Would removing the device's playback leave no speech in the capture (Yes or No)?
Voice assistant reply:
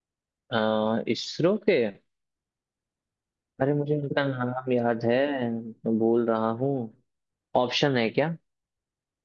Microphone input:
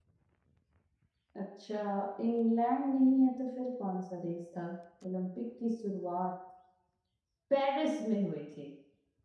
No